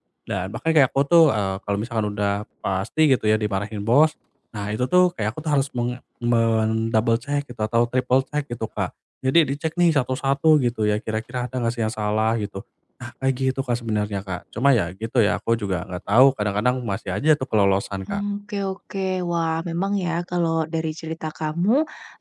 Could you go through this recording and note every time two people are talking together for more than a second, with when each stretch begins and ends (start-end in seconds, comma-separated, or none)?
none